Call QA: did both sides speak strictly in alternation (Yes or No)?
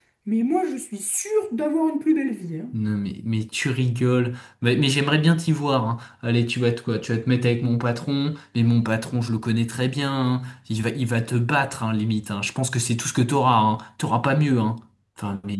Yes